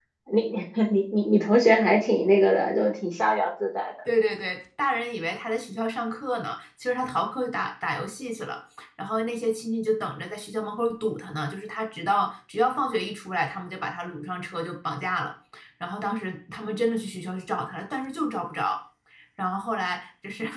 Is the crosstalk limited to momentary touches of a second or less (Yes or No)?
Yes